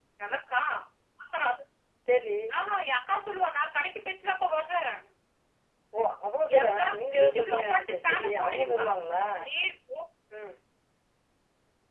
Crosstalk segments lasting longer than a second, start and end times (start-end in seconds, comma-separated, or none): 6.5-8.9